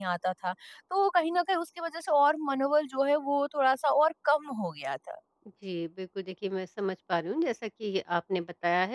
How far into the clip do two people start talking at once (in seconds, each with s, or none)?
none